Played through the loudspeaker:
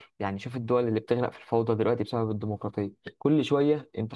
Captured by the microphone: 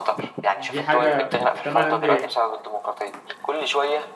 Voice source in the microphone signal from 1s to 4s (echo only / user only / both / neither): both